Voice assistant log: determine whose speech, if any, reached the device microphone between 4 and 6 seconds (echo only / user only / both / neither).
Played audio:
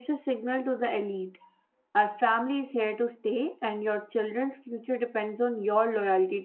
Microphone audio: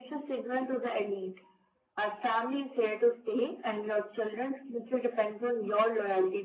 echo only